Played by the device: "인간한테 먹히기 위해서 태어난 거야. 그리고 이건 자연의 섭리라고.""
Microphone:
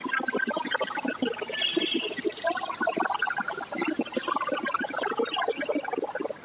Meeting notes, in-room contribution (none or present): none